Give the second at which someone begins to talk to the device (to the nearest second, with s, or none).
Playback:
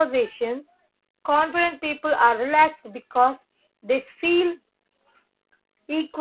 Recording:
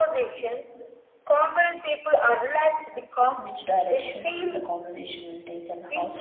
3 s